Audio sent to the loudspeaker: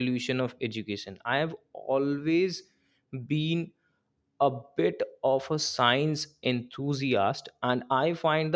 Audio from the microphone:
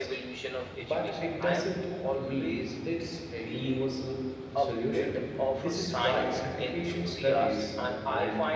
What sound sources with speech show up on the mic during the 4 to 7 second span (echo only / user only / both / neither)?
both